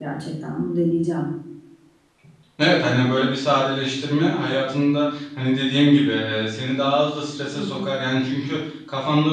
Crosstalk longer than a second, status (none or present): none